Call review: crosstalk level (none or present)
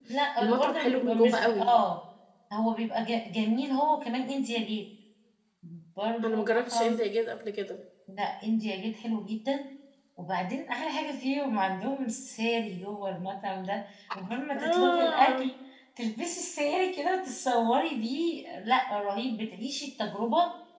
present